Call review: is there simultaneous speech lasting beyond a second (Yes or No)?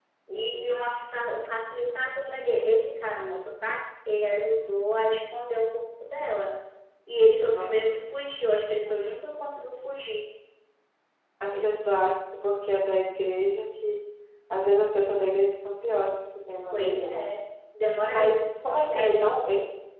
Yes